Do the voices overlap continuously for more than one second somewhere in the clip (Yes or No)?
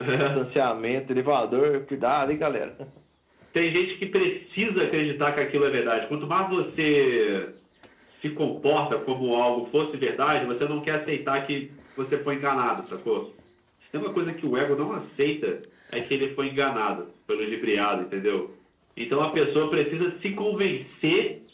No